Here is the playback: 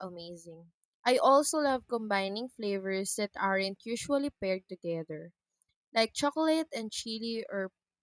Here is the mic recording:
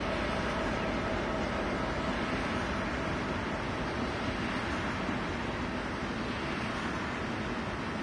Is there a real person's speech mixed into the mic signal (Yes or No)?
No